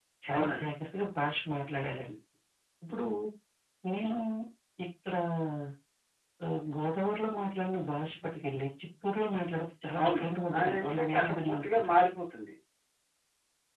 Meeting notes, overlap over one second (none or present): present